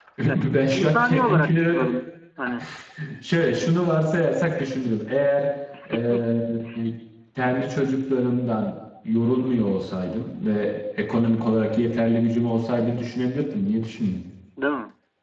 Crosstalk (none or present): present